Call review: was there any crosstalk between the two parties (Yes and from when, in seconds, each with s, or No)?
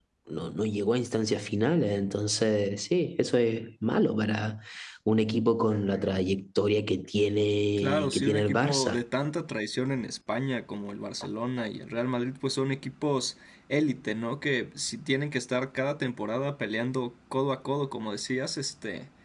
Yes, from 7.8 s